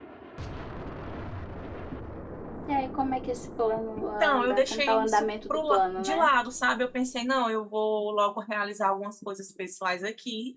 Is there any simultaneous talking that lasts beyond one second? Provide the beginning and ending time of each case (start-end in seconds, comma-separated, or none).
4.0-6.3